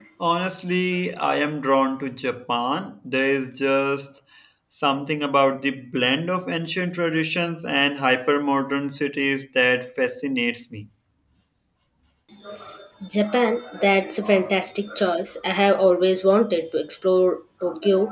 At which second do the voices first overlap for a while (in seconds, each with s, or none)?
none